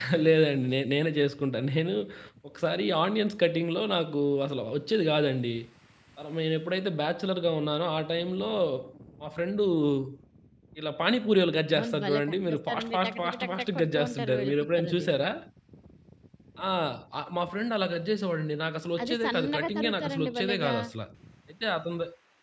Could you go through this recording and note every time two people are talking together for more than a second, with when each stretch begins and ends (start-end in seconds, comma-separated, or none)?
11.7-15.1, 19.0-20.7